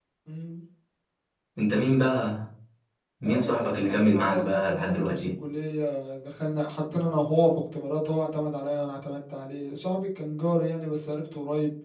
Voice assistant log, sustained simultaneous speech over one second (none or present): present